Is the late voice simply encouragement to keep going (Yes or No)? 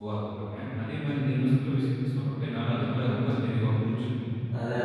No